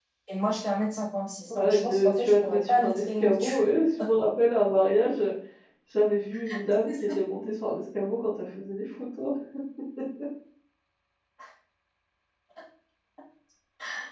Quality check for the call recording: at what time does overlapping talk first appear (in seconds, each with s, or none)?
1.5 s